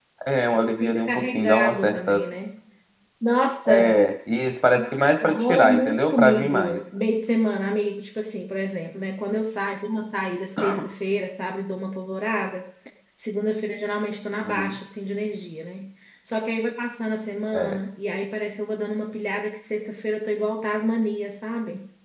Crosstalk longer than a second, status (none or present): present